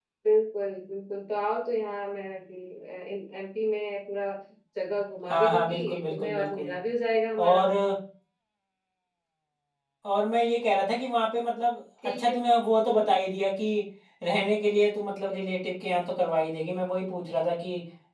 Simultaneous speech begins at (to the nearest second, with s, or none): 5 s